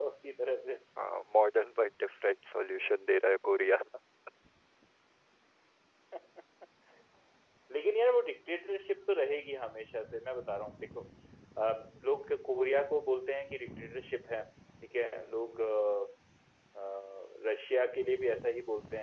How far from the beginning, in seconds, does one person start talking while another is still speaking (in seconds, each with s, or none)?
none